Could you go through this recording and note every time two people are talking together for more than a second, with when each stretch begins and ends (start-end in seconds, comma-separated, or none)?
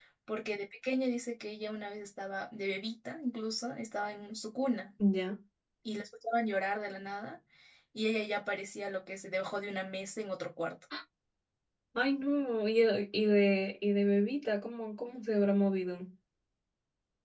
none